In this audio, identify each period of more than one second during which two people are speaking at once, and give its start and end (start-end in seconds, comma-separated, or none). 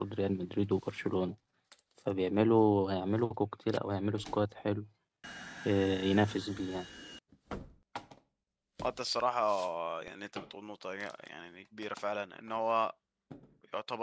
none